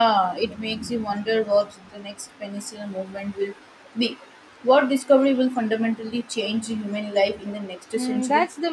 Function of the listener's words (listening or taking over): taking over